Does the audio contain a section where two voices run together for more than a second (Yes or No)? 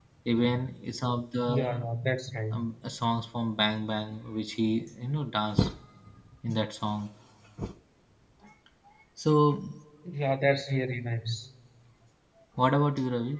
No